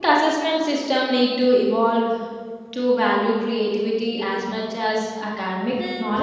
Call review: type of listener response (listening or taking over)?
taking over